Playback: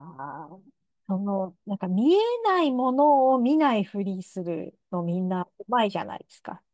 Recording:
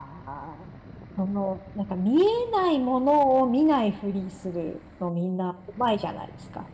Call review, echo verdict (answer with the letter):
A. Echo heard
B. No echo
A